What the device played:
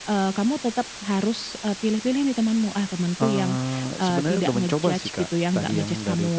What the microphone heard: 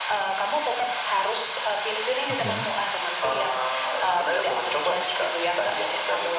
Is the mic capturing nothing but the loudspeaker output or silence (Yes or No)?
No